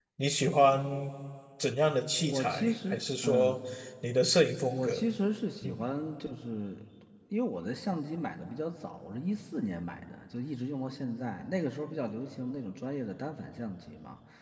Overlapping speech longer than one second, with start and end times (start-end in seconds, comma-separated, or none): 2.2-3.6